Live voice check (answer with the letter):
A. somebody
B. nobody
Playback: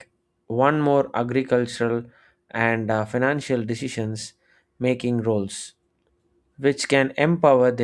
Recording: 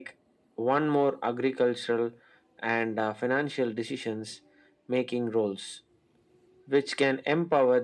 B